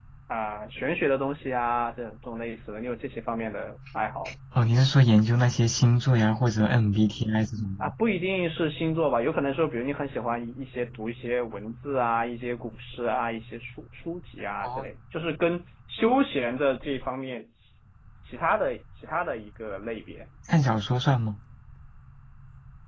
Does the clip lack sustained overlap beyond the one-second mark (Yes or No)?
Yes